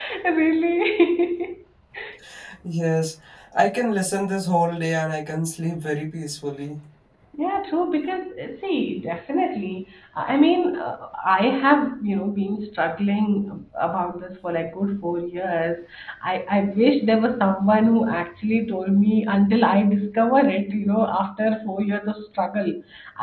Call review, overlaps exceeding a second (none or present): none